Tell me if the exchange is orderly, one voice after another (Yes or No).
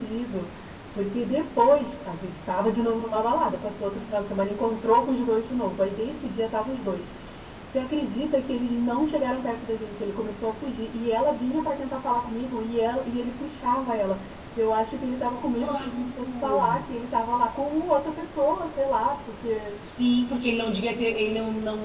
No